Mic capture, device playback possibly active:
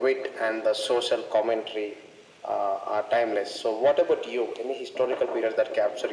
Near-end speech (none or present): none